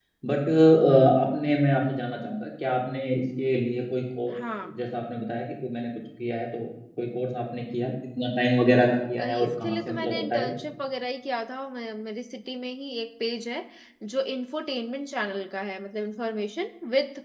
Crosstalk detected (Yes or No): Yes